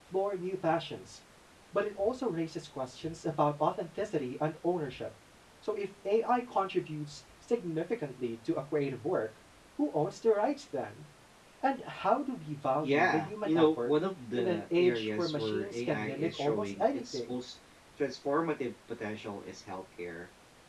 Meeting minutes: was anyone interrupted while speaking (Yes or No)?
Yes